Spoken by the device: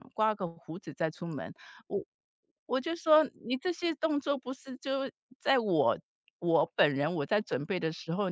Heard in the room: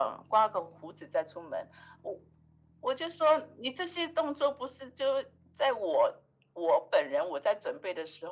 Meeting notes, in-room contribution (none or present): none